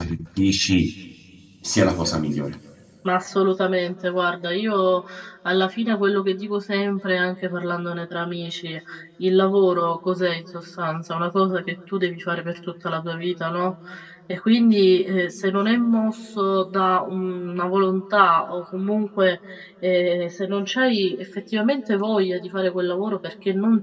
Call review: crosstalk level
none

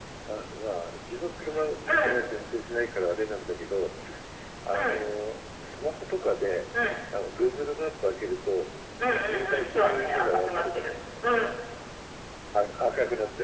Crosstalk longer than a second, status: present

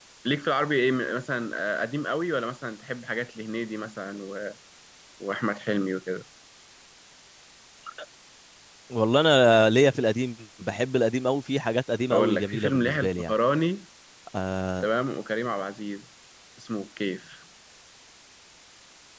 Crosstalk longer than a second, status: present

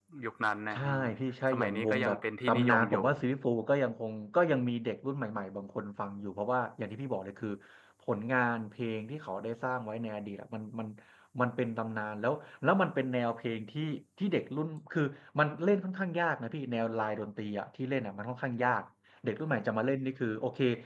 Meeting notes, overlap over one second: present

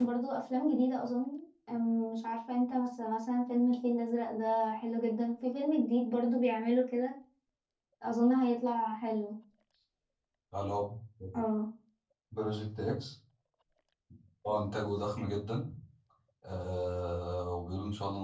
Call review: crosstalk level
none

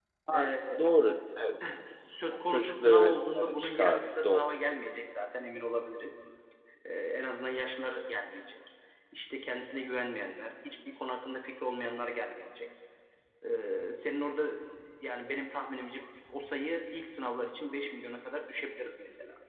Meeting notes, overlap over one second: present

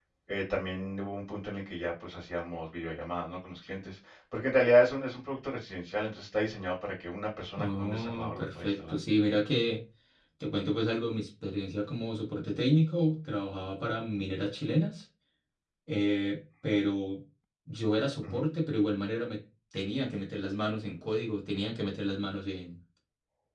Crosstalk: present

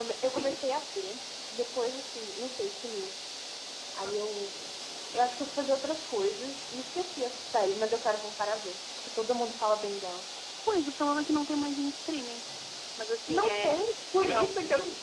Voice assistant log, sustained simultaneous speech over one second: present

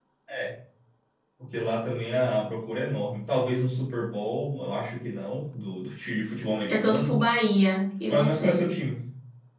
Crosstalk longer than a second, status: none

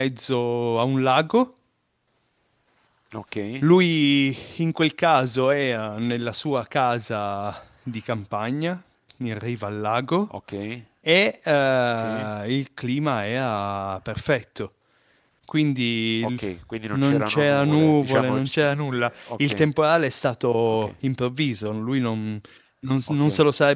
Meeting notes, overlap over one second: present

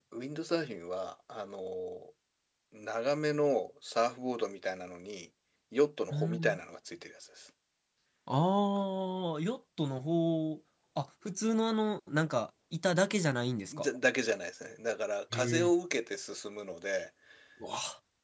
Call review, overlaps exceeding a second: none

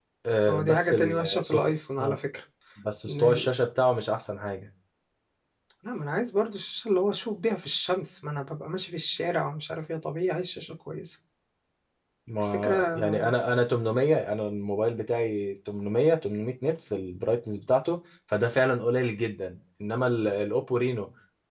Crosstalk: present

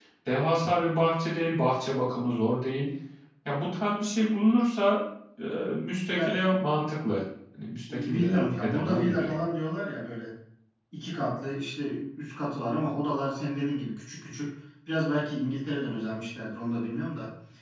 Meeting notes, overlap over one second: present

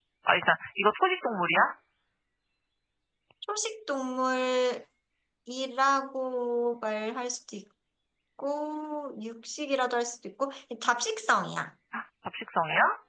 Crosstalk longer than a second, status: none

